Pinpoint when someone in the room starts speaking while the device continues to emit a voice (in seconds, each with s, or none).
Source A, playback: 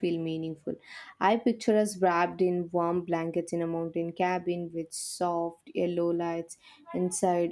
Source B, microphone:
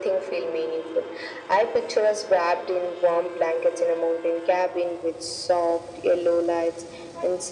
none